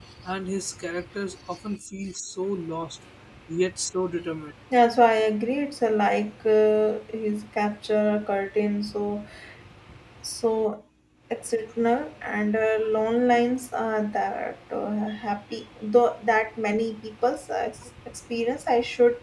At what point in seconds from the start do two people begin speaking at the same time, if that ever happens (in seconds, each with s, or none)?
none